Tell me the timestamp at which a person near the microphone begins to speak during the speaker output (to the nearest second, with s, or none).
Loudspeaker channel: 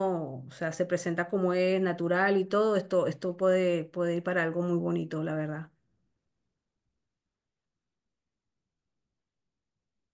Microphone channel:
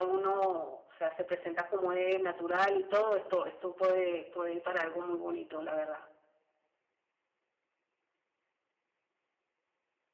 none